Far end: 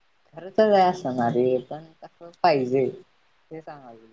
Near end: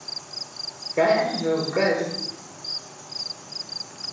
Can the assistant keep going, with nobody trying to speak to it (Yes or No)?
No